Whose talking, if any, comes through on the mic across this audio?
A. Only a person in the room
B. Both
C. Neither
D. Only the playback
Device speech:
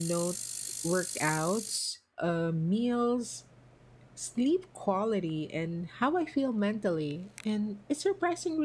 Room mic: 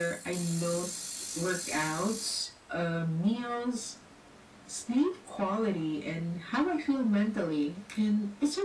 D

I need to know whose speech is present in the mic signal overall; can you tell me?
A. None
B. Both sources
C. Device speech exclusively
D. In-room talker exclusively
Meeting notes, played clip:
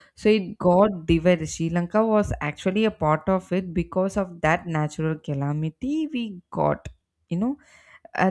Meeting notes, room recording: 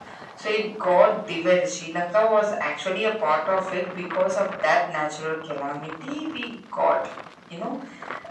C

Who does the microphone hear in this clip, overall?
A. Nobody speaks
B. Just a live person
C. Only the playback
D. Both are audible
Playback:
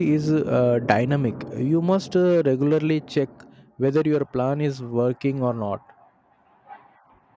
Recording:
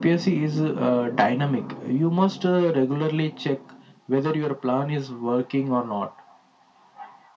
C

